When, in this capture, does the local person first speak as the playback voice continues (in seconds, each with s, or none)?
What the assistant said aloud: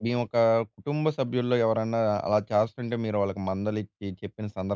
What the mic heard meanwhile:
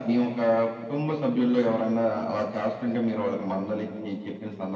none